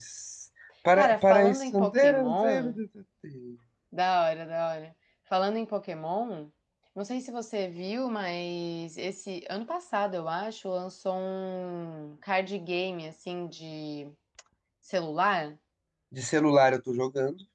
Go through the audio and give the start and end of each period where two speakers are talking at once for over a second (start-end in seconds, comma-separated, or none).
1.0-2.8